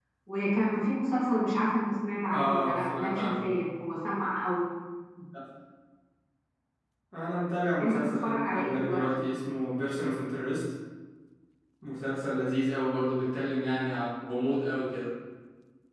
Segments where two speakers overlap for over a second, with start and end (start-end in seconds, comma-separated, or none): 2.3-3.6, 7.8-9.0